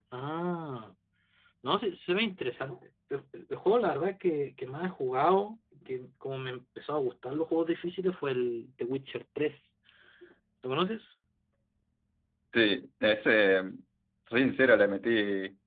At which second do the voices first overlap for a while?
none

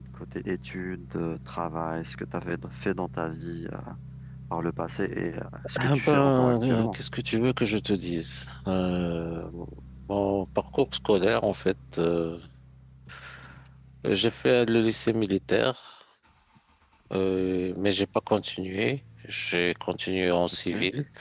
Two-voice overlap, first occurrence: 5.8 s

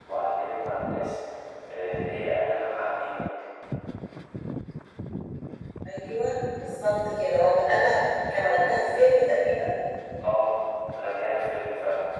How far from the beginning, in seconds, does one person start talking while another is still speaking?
none

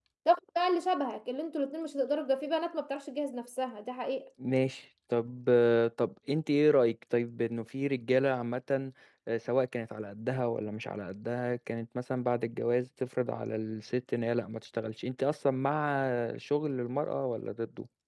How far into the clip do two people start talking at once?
none

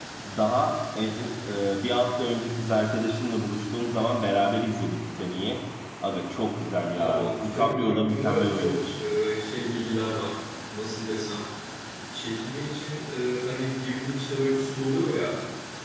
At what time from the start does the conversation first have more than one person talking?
6.9 s

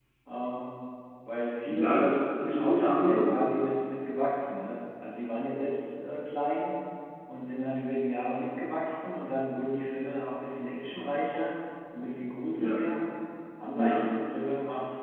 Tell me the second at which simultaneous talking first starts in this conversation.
1.7 s

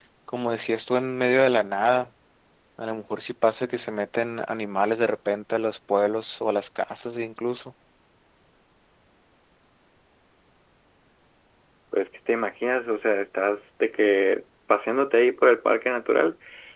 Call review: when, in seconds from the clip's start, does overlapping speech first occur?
none

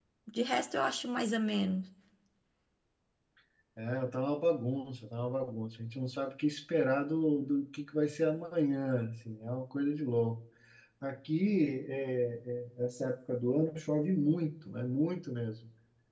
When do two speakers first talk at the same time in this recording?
none

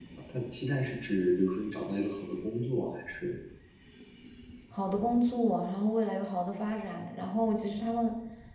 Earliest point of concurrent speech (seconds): none

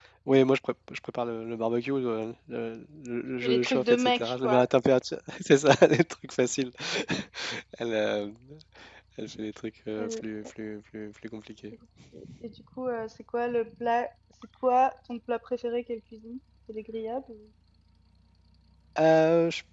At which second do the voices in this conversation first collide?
3.4 s

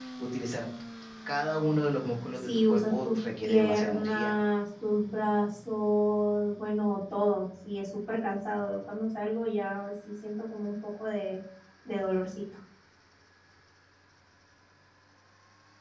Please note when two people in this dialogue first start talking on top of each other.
2.4 s

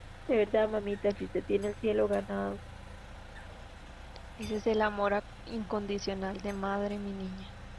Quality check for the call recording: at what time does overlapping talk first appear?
none

